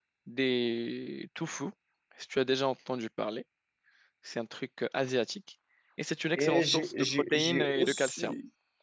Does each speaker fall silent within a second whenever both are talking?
No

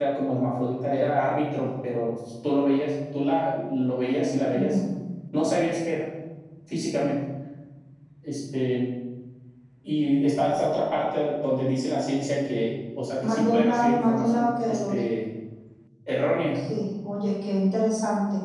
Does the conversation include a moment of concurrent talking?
Yes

